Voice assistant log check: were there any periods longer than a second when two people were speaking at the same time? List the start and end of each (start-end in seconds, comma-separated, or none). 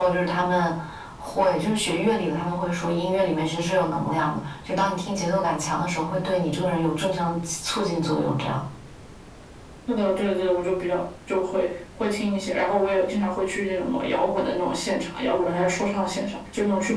none